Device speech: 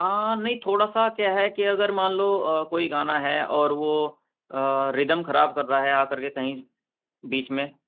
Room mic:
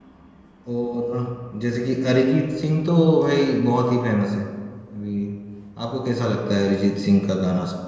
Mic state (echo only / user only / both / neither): user only